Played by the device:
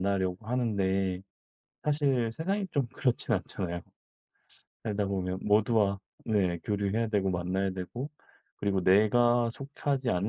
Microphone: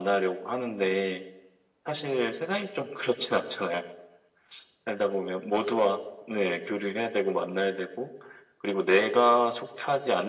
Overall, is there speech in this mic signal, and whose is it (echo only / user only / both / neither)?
echo only